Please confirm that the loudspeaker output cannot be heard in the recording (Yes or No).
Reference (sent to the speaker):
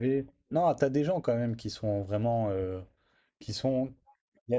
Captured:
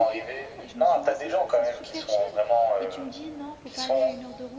No